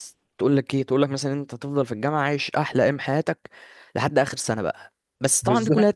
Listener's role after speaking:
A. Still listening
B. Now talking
A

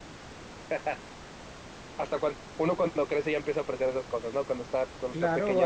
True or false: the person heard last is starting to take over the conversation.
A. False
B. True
B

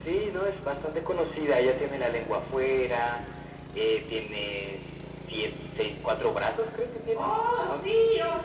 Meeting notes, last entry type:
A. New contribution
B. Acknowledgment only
A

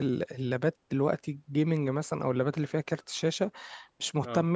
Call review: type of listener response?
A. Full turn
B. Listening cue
B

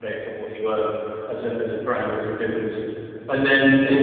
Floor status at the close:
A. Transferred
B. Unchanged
A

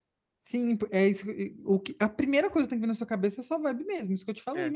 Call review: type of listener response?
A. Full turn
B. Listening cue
B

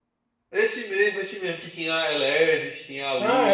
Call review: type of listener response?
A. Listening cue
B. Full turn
B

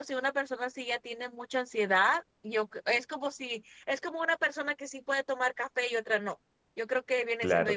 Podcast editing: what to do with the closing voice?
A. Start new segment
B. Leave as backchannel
B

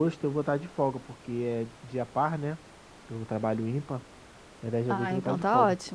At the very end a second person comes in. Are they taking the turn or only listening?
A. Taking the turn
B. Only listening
A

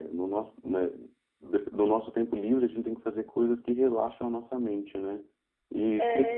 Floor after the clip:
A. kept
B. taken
A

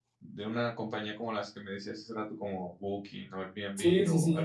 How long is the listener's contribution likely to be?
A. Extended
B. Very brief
A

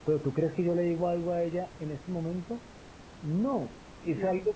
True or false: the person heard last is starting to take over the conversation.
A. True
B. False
B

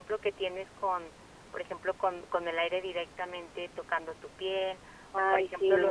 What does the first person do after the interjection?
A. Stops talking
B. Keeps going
B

